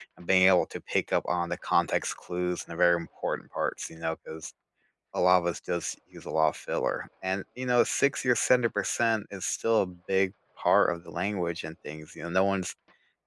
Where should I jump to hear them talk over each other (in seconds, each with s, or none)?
none